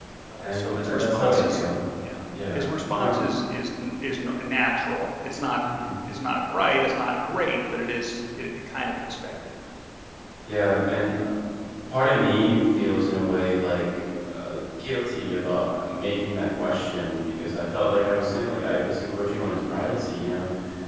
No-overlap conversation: No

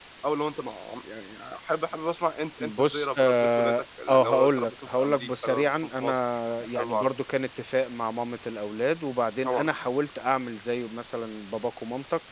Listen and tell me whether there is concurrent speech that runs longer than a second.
Yes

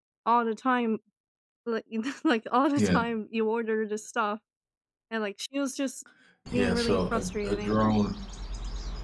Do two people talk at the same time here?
Yes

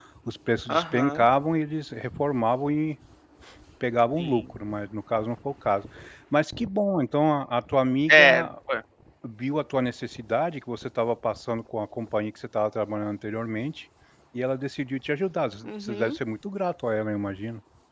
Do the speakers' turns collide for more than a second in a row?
No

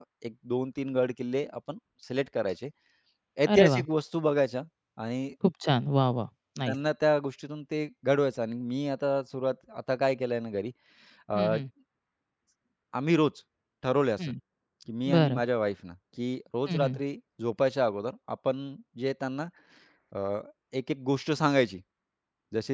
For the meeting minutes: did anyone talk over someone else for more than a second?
No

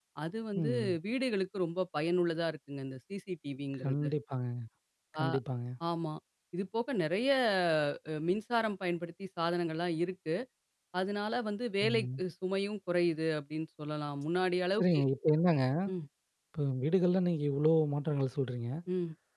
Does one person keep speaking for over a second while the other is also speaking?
No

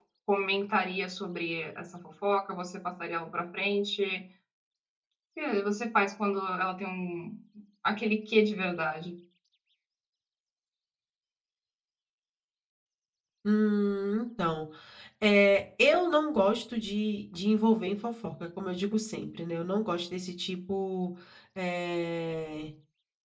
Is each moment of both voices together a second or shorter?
Yes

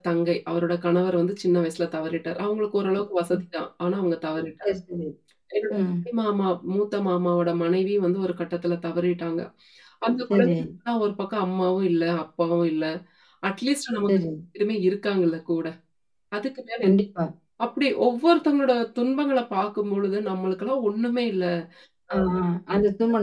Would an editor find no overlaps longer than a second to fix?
Yes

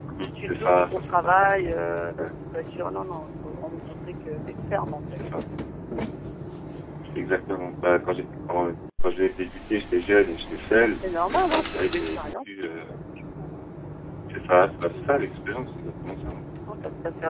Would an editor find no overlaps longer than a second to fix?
No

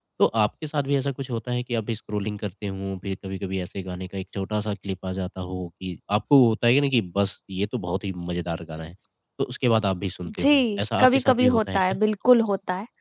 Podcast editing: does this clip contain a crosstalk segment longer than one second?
Yes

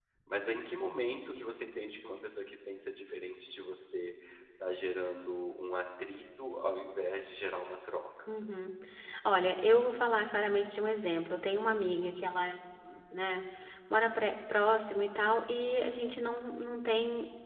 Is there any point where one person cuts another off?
No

